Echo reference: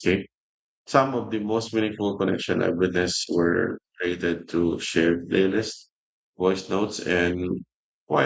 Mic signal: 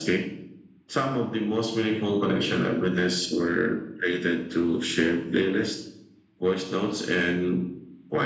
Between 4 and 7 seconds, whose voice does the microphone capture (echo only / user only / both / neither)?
echo only